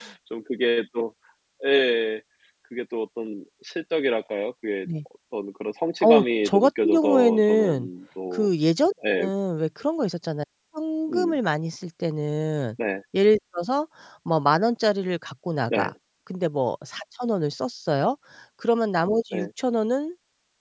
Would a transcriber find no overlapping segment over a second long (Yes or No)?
No